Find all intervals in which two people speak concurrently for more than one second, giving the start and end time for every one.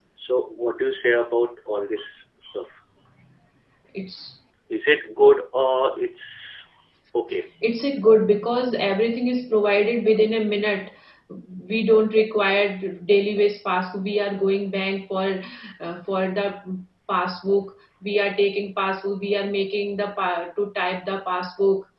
none

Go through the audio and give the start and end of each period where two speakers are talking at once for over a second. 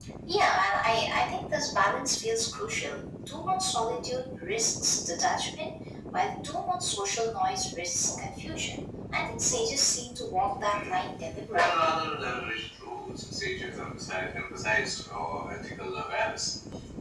none

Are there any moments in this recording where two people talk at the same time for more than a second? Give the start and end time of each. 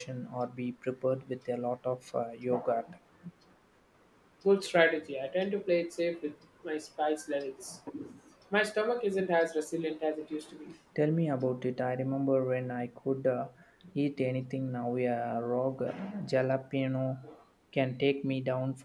none

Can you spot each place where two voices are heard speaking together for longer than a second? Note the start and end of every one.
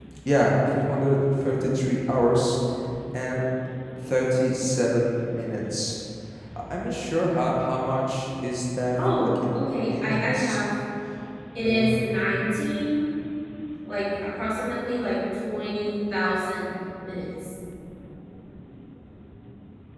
9.0-10.6

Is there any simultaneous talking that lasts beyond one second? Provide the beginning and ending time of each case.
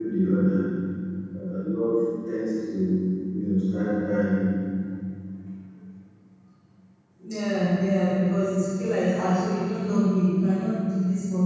none

